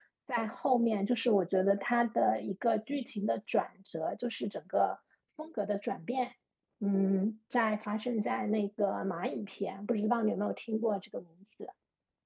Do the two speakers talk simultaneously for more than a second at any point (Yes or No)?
No